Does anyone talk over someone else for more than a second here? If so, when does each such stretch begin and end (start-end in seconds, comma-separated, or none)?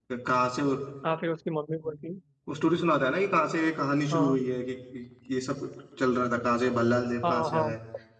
none